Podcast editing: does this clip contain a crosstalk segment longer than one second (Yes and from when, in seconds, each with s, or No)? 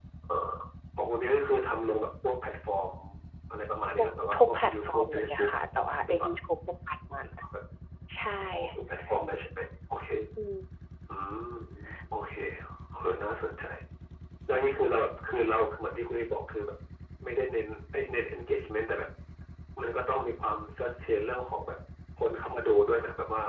Yes, from 4.0 s